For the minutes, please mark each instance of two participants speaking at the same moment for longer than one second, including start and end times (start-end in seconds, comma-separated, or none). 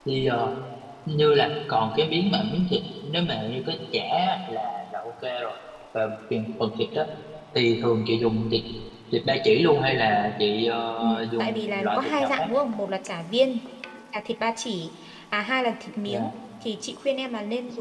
11.0-12.5